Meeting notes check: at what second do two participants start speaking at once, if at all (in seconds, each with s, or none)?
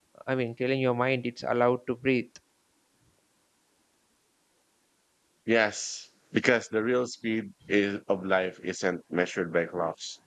none